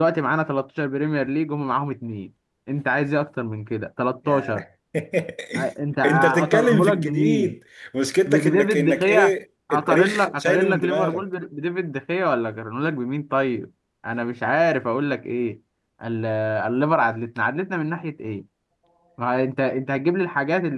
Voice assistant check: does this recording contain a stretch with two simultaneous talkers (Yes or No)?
Yes